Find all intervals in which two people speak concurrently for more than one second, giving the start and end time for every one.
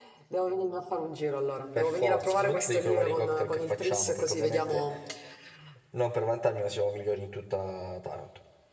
1.8-4.8

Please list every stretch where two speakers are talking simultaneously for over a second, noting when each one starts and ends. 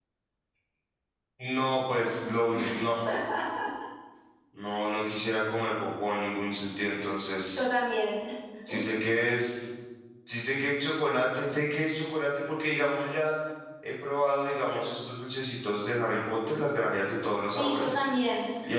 none

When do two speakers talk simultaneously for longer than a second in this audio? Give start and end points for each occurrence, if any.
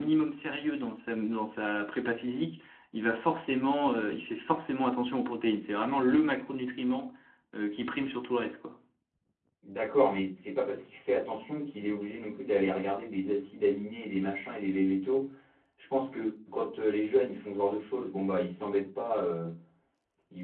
none

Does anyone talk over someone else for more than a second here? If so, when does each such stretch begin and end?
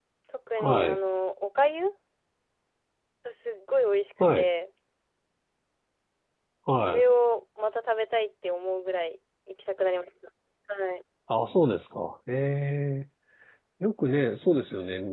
none

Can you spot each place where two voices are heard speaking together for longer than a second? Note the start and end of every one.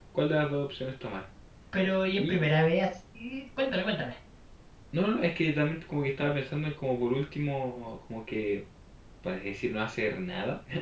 none

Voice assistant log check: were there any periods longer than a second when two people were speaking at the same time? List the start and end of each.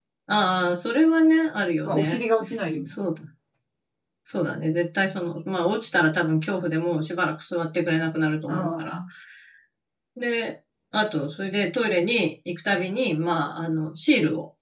none

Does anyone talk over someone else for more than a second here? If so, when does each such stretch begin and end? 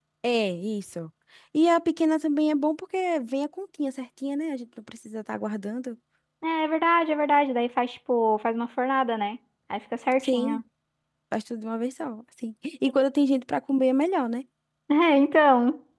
none

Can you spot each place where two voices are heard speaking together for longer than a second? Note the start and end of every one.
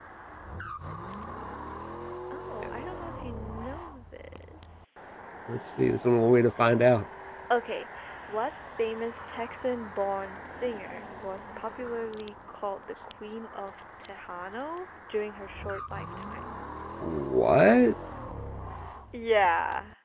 none

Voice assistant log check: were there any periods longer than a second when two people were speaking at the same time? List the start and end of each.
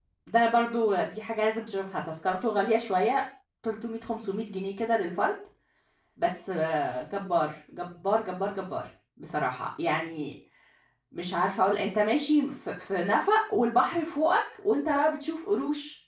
none

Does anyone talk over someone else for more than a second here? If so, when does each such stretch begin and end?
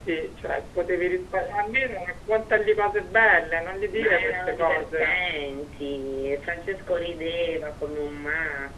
3.9-5.2

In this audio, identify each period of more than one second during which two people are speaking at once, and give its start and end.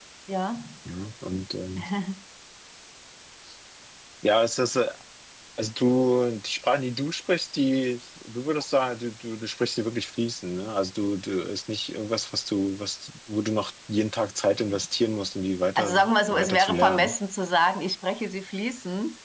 15.8-17.1

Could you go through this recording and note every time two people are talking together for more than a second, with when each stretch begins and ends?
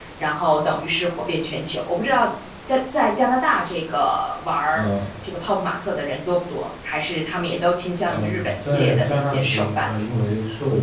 8.1-9.9

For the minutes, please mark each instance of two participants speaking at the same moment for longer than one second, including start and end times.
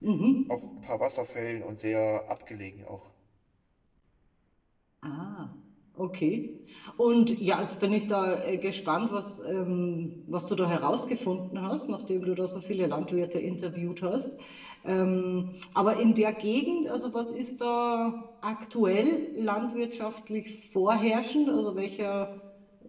none

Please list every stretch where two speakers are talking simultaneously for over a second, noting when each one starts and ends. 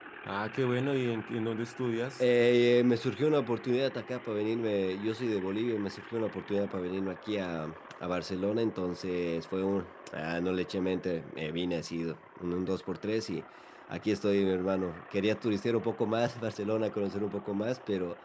none

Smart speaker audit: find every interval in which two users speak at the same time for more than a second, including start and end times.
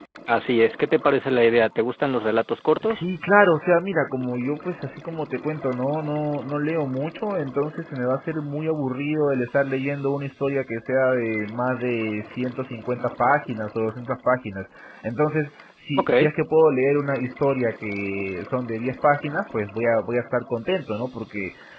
none

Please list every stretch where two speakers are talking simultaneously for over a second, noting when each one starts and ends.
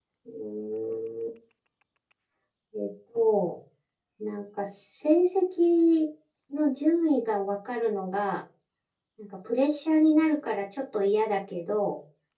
none

